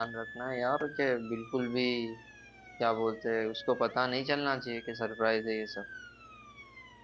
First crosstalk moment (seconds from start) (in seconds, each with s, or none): none